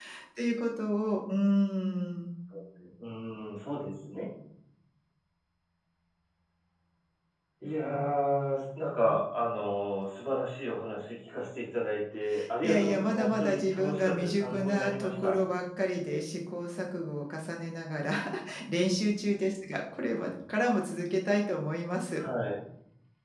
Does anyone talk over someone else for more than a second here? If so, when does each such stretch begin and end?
12.6-15.3

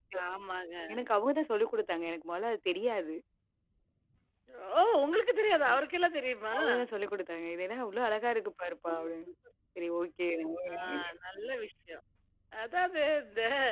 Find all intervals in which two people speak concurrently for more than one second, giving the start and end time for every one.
none

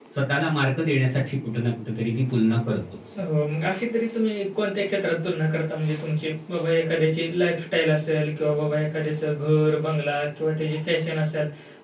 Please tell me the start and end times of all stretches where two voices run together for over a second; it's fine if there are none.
none

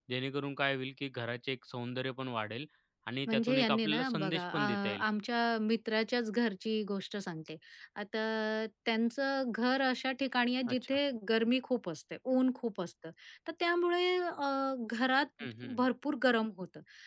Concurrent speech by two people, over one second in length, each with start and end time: 3.3-5.0

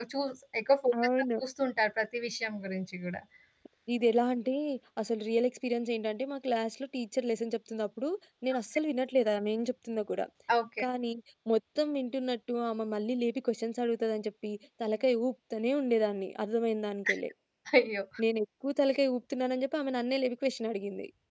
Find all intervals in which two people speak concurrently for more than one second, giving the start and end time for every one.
none

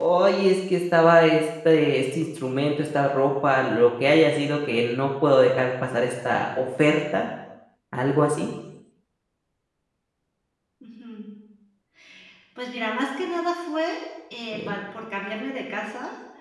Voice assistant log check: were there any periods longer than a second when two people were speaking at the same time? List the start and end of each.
none

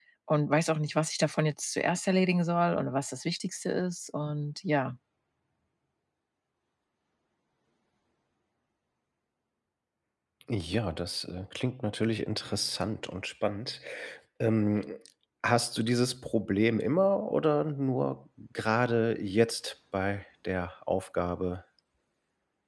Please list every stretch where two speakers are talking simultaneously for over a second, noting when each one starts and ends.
none

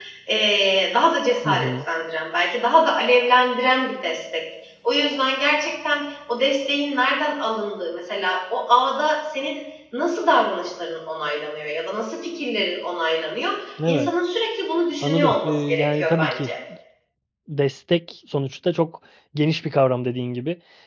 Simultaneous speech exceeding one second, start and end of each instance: 15.0-16.5

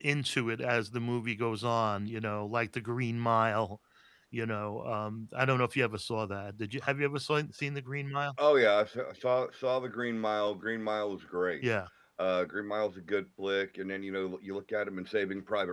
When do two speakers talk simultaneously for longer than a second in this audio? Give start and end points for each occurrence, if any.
none

